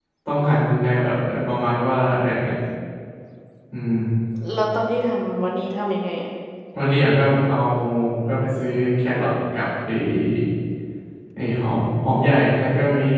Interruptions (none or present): none